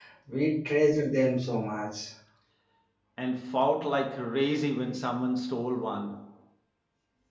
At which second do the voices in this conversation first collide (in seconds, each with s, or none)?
none